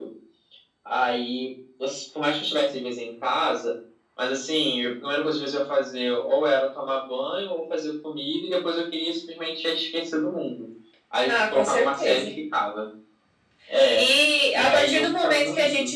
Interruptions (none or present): present